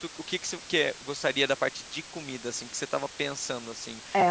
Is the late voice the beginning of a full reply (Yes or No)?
Yes